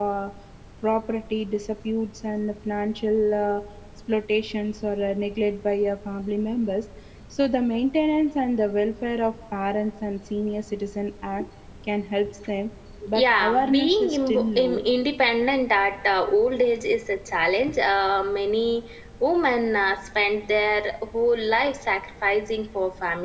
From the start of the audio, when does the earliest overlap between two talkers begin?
13.2 s

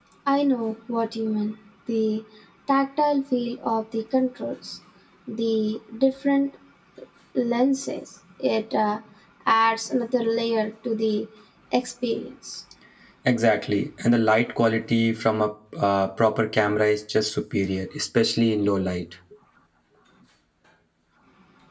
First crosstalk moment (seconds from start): none

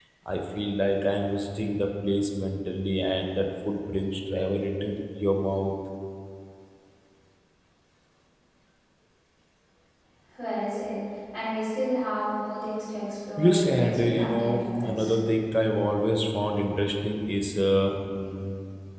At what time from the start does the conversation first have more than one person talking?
13.4 s

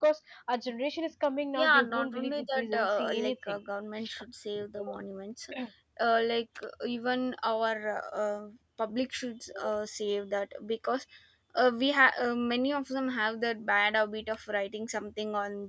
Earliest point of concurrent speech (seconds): 1.6 s

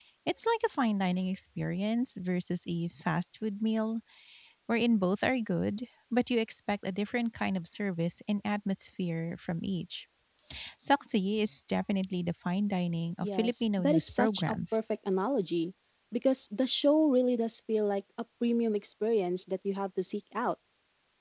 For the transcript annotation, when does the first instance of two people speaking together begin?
13.2 s

